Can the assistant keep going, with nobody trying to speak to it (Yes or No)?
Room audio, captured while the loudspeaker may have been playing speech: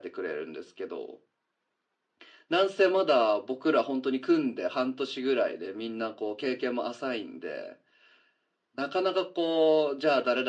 Yes